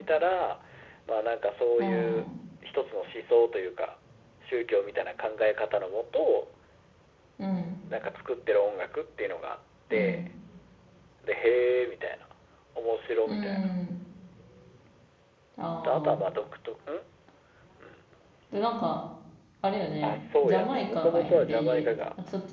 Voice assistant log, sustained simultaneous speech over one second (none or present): present